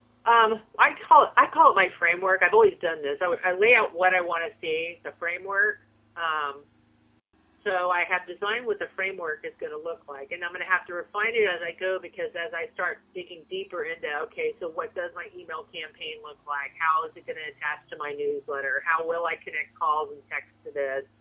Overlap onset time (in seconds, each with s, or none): none